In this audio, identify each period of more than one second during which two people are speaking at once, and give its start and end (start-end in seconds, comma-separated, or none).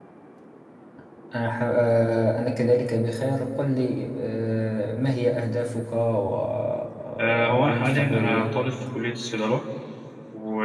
7.2-8.6